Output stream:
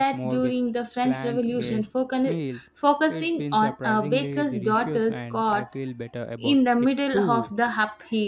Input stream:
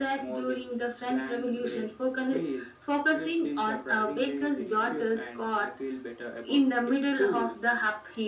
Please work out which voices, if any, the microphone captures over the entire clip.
echo only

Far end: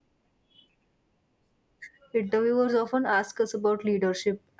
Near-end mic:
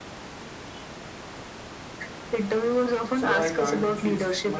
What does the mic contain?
both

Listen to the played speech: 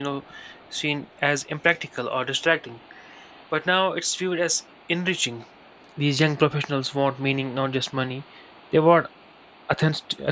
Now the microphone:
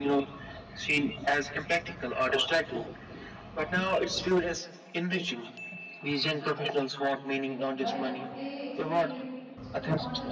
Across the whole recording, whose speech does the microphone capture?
both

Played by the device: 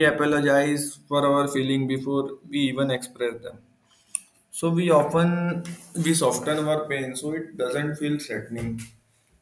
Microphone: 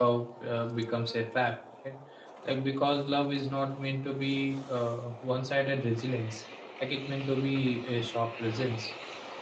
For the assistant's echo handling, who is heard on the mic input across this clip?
user only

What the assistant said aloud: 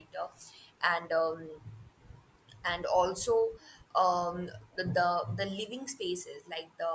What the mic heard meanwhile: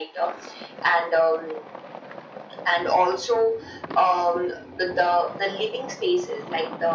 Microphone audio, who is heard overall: echo only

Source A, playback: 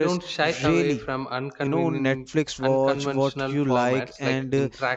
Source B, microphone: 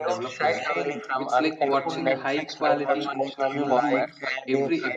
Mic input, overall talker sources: both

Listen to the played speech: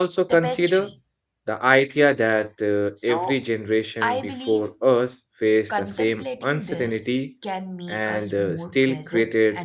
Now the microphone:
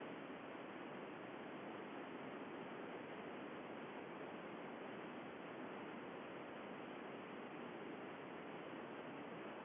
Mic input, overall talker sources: neither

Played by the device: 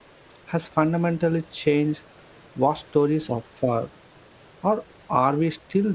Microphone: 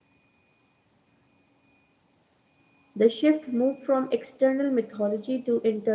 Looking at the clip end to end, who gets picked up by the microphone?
user only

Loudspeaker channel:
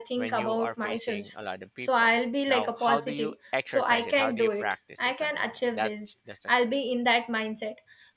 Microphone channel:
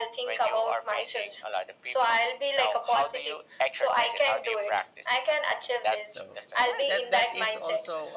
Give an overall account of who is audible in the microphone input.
both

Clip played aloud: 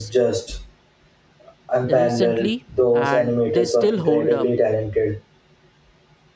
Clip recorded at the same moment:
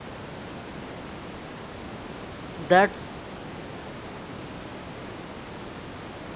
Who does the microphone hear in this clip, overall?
user only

